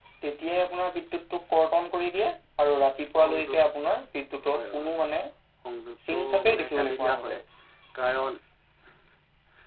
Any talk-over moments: Yes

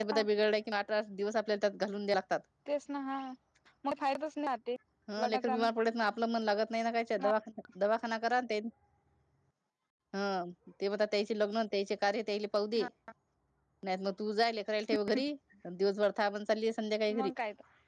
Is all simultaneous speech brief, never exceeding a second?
Yes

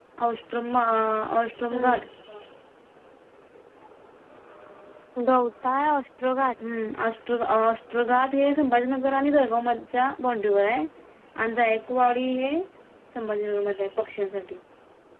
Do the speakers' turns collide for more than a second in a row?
No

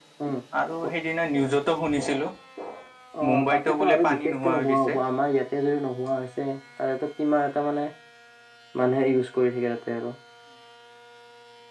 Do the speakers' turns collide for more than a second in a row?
Yes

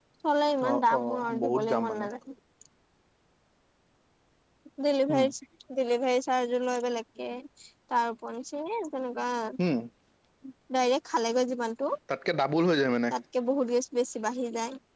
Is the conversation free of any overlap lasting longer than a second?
No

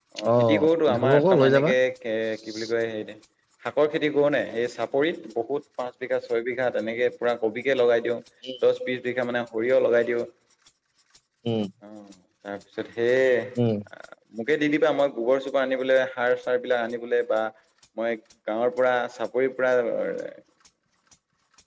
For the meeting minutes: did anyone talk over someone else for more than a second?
Yes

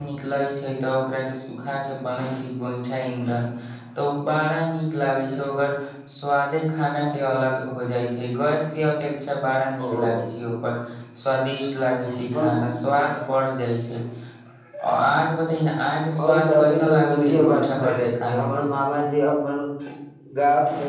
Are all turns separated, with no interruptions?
No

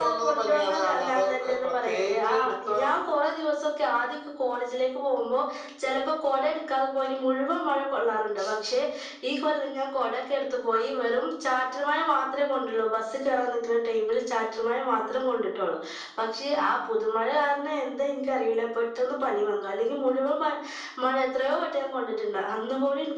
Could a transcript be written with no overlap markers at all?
No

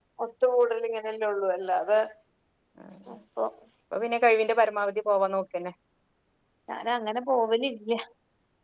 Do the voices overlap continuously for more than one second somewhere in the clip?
No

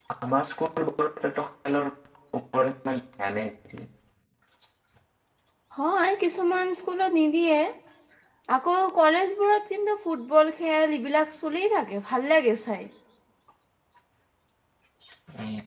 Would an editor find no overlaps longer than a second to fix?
Yes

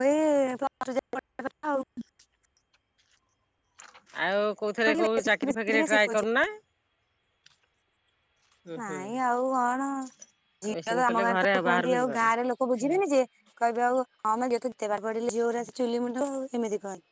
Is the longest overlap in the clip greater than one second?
Yes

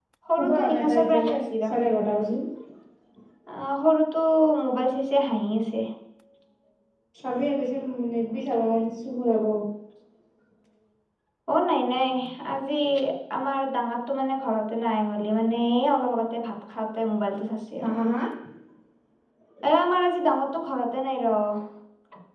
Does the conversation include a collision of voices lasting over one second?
Yes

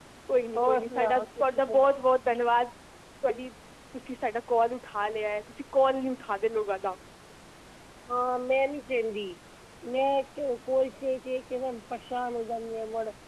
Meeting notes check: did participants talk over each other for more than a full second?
Yes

